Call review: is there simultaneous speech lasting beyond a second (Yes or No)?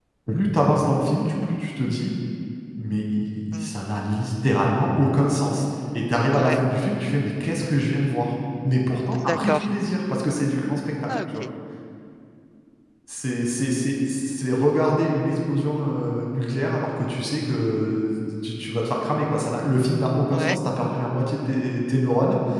No